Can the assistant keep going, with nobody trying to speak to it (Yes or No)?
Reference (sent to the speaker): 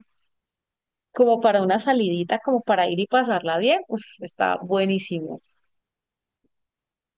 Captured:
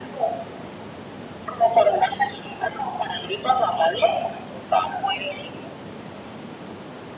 Yes